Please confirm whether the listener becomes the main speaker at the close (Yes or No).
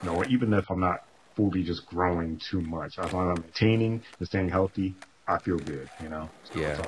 Yes